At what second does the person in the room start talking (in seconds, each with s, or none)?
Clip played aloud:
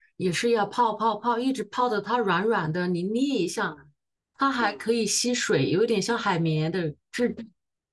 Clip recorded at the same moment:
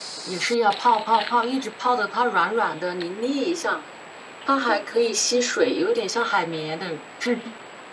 none